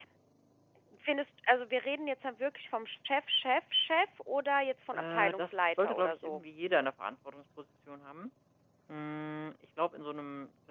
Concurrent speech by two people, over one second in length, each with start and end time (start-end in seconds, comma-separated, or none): 4.9-6.4